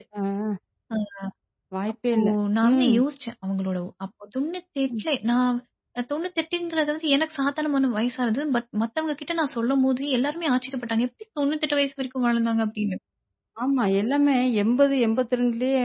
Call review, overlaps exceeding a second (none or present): none